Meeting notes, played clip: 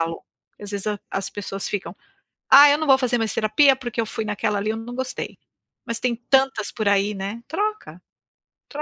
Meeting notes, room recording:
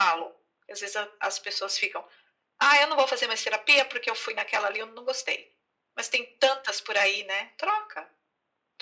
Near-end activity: none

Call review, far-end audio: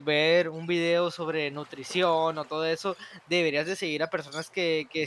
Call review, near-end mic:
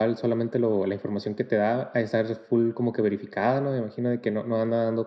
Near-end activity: present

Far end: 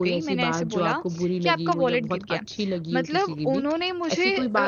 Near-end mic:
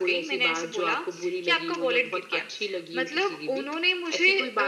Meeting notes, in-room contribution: none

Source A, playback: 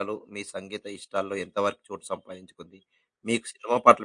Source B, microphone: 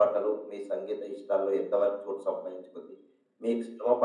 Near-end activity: none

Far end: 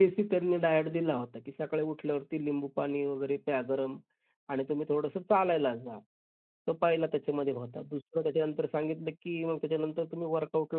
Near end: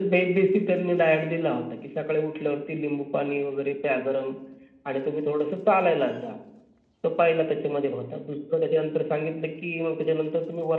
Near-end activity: none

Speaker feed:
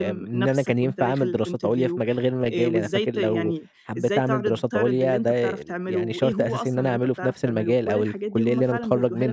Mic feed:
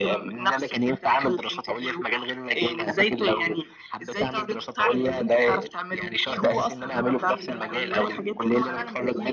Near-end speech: present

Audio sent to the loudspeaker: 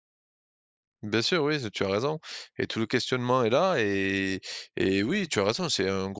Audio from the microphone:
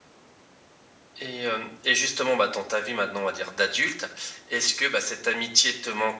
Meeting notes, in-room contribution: present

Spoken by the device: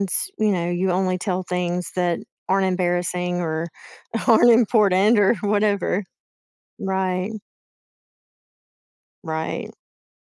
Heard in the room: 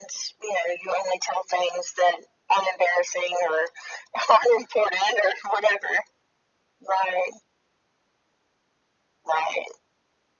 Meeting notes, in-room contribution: none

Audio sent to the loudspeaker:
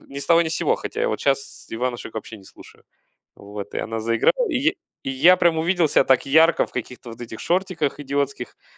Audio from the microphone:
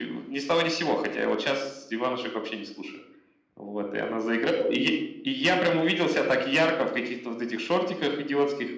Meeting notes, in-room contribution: none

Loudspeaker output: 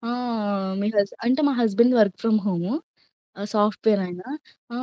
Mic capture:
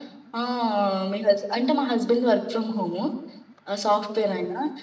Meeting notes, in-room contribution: none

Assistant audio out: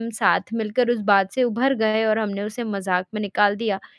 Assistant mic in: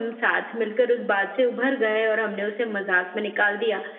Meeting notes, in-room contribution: none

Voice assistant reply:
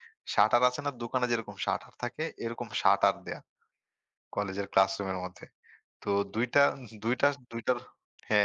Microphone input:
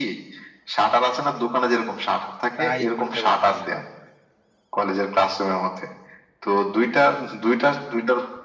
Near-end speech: present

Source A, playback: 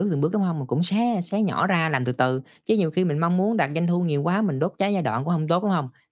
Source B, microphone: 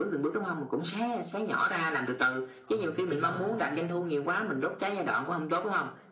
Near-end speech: present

